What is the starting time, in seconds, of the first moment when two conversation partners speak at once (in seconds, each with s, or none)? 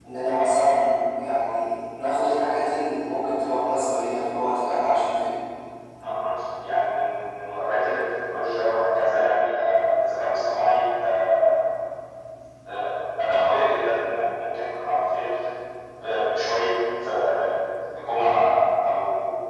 none